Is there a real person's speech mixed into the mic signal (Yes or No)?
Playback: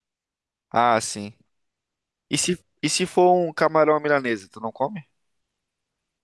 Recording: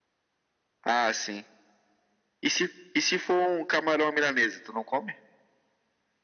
No